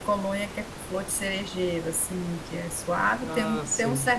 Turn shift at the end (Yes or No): No